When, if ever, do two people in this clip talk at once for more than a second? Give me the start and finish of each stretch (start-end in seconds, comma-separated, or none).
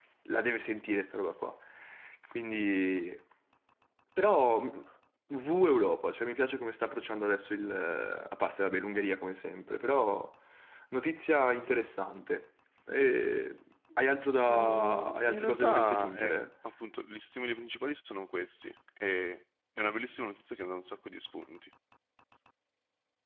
14.5-16.4